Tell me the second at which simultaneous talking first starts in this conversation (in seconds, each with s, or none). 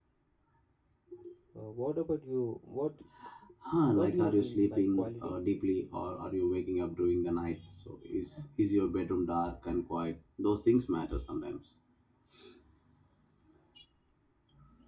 3.9 s